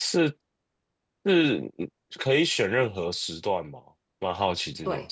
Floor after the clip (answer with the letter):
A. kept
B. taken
B